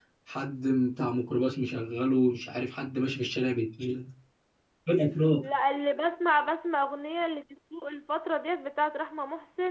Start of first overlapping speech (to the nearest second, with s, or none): none